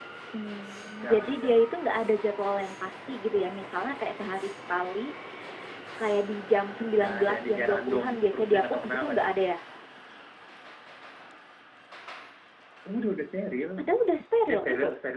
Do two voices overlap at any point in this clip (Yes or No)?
Yes